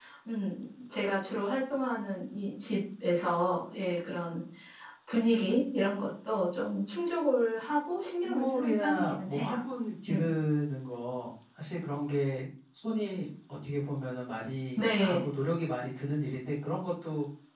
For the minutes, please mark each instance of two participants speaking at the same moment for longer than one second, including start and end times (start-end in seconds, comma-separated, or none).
8.2-9.6